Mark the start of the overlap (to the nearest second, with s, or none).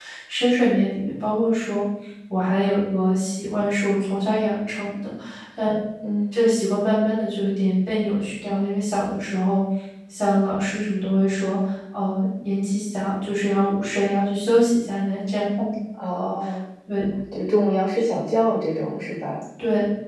none